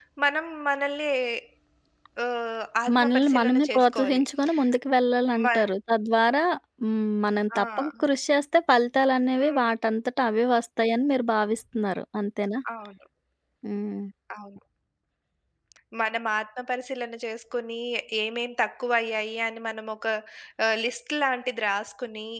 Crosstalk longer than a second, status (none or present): present